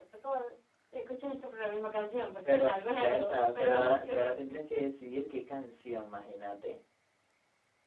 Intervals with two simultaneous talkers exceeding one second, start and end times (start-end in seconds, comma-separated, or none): 2.4-4.3